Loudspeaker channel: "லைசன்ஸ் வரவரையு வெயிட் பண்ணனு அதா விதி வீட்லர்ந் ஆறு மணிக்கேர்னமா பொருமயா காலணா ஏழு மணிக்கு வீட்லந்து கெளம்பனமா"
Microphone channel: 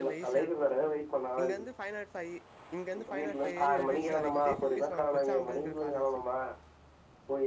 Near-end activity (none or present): present